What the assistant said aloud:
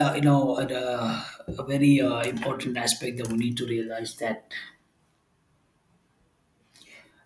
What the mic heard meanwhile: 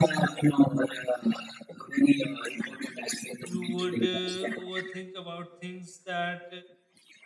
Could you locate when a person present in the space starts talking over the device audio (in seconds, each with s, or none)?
3.4 s